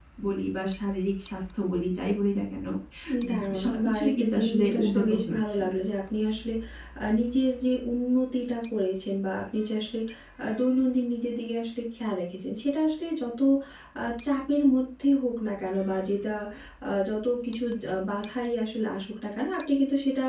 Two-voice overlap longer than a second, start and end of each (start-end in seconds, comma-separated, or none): 3.3-5.6